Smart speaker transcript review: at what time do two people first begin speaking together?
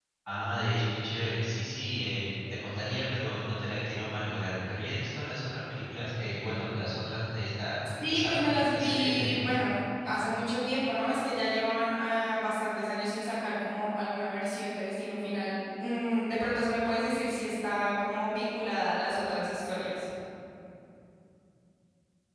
8.0 s

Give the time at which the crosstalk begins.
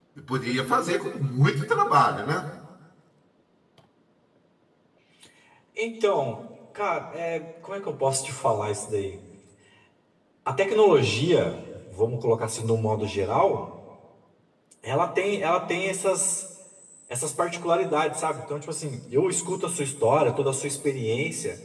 none

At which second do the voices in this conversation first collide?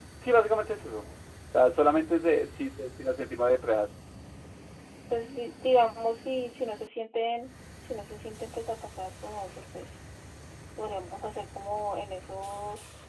none

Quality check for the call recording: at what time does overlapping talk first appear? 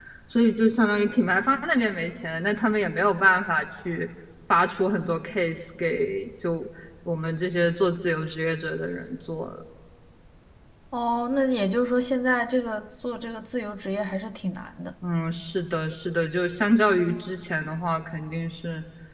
none

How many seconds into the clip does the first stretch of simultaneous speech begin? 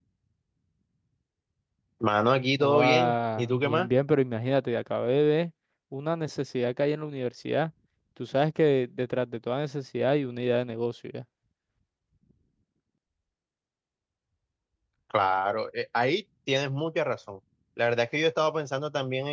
2.6 s

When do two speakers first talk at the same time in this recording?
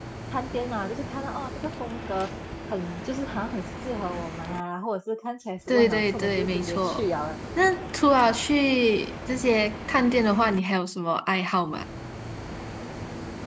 5.7 s

